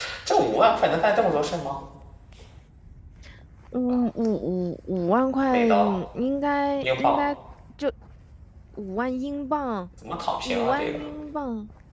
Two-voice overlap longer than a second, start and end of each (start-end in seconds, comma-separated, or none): none